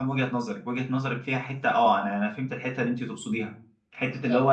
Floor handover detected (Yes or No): No